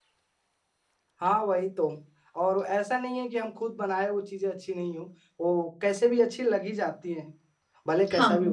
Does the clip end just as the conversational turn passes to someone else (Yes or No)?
Yes